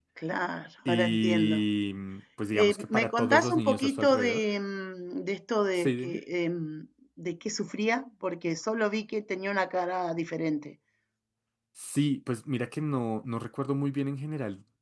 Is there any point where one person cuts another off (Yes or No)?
Yes